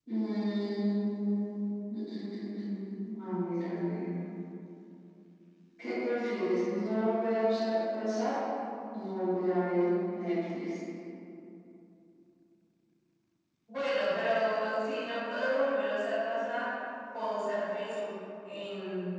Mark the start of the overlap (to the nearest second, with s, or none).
none